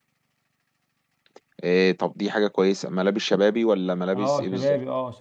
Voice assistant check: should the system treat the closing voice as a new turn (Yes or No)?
Yes